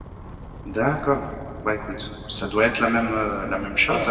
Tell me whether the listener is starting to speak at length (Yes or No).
Yes